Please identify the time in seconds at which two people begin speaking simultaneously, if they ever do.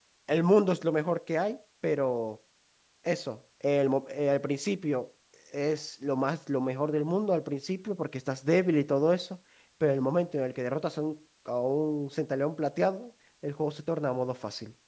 none

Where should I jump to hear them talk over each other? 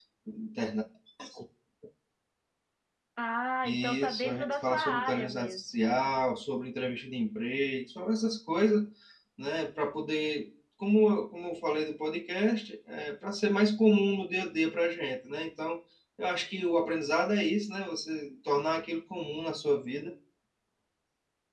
3.6 s

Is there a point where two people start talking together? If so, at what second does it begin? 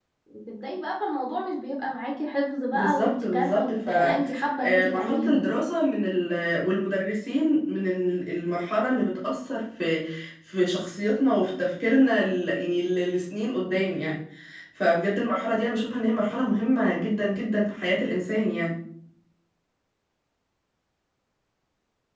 2.7 s

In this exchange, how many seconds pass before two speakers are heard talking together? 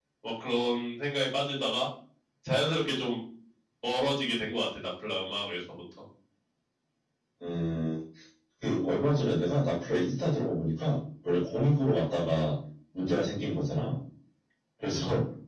none

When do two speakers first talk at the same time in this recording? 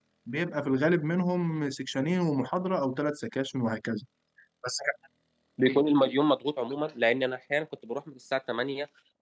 none

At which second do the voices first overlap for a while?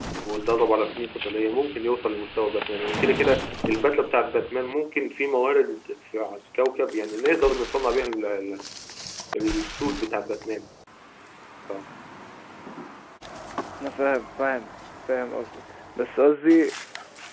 none

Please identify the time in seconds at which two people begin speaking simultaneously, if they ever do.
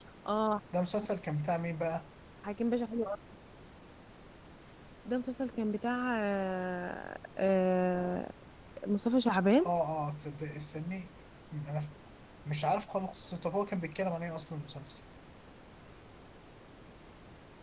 none

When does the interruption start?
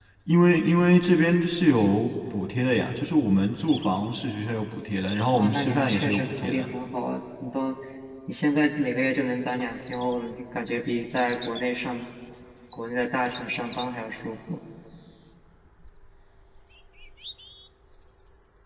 5.3 s

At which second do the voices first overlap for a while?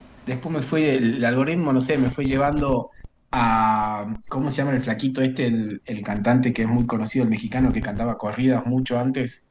none

